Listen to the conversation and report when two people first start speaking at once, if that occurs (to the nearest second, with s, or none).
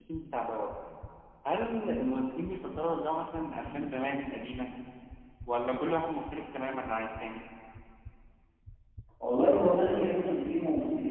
none